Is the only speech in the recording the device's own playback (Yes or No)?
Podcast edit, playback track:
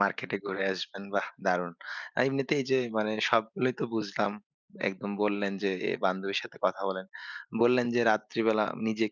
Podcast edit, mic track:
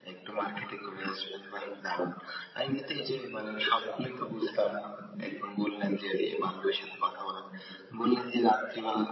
Yes